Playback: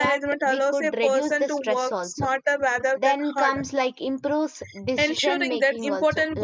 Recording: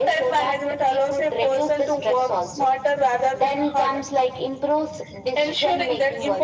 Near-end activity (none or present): none